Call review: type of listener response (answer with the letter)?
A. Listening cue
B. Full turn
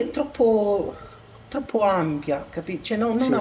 A